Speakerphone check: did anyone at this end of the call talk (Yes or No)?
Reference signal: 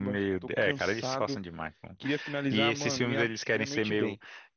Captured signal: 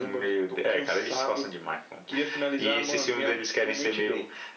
No